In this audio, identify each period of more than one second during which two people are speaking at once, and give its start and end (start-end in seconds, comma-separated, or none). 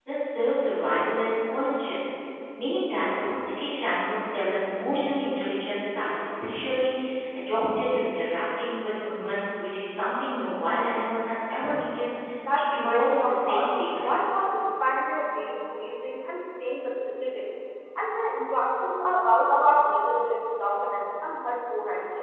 12.5-14.2